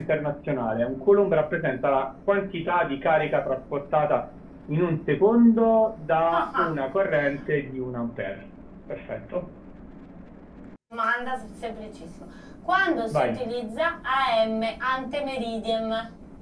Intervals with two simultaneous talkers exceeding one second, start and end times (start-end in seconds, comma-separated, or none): none